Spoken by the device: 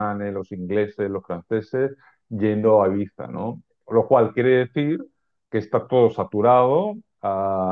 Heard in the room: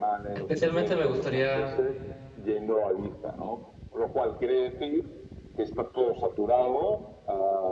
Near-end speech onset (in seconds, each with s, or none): 0.3 s